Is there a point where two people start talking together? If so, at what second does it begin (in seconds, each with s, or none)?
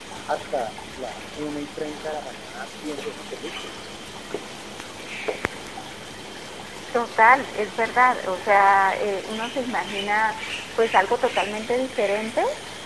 none